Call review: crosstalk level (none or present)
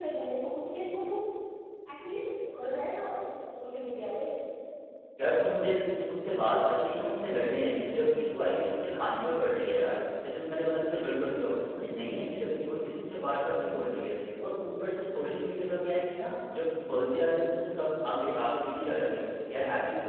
none